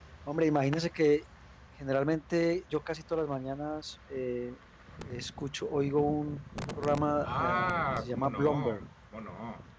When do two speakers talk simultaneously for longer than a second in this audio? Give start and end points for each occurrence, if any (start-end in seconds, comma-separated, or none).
7.2-8.8